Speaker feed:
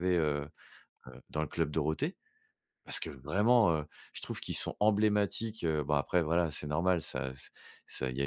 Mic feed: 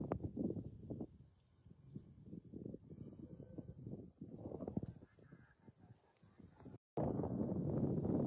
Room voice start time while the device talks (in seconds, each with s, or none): none